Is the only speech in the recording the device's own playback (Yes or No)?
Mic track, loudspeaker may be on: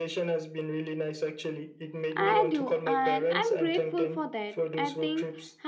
No